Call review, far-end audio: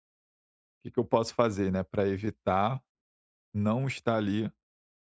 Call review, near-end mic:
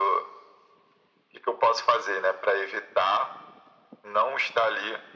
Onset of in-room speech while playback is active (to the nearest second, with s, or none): none